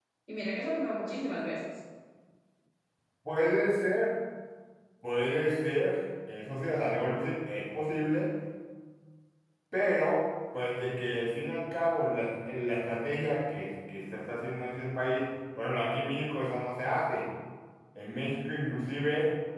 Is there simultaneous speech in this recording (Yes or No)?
No